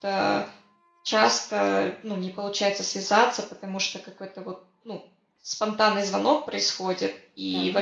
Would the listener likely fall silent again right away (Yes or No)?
Yes